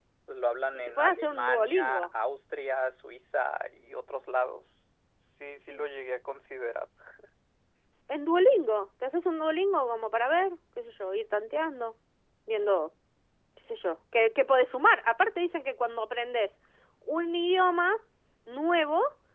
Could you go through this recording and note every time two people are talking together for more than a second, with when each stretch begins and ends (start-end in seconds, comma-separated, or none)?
0.7-2.1